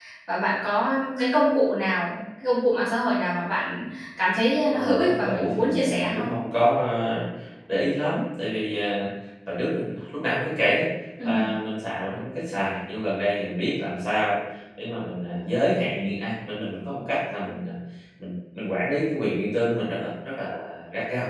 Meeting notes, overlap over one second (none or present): present